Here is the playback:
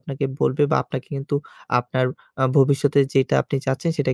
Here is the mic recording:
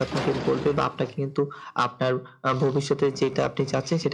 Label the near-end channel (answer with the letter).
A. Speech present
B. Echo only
B